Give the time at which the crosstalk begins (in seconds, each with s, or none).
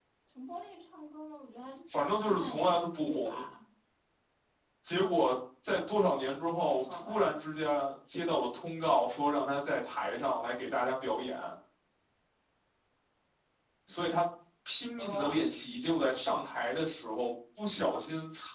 2.1 s